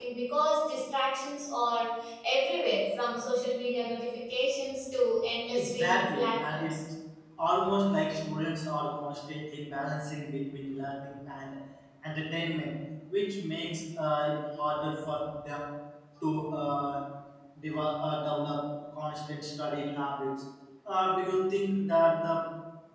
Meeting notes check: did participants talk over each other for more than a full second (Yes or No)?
Yes